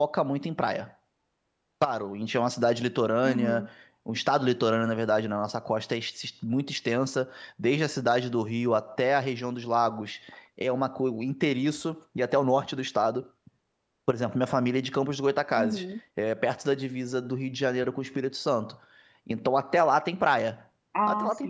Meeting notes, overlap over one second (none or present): none